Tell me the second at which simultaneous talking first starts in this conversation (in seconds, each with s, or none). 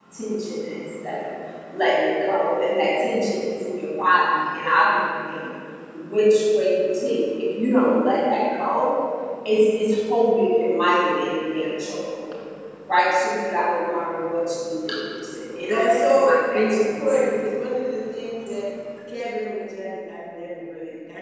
15.7 s